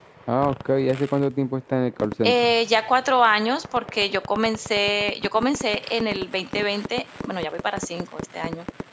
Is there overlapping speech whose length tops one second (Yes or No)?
No